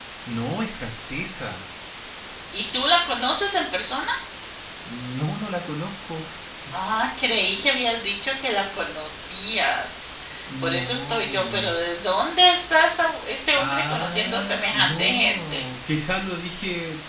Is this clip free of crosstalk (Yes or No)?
No